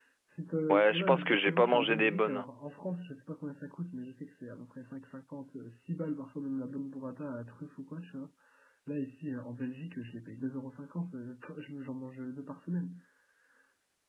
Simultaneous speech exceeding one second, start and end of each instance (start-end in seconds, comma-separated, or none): 0.7-2.5